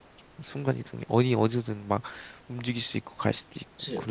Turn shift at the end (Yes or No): Yes